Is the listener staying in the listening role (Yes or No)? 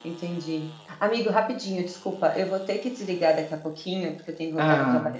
Yes